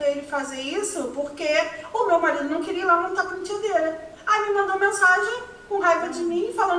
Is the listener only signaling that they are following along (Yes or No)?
Yes